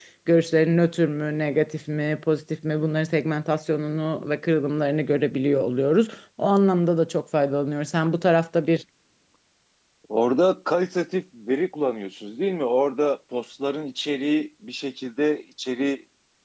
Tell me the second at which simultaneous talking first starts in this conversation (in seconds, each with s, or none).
none